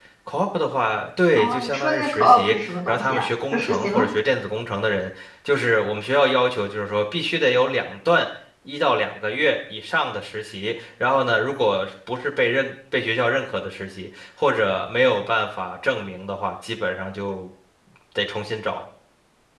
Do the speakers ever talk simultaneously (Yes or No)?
Yes